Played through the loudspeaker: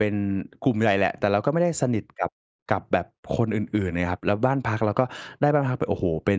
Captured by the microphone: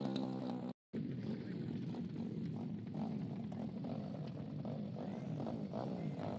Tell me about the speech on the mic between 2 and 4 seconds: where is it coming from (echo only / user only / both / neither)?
neither